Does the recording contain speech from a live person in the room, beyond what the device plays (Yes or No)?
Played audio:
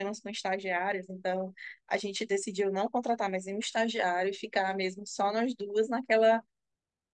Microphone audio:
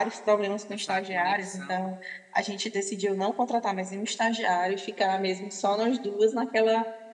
Yes